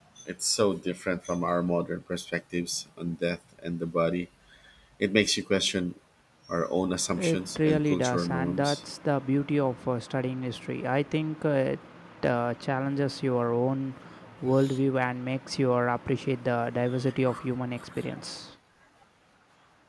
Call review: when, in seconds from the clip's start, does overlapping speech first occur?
7.2 s

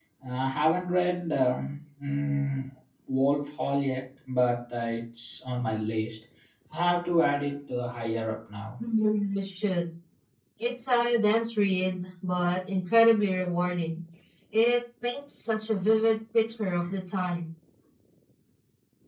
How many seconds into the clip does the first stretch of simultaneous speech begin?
none

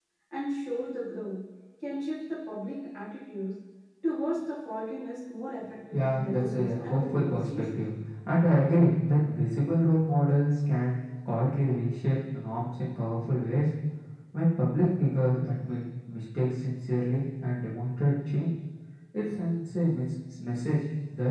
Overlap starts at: 5.9 s

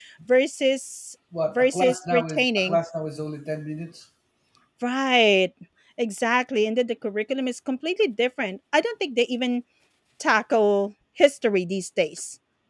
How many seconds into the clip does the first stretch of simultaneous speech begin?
1.3 s

